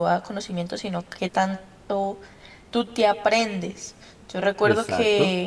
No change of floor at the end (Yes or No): Yes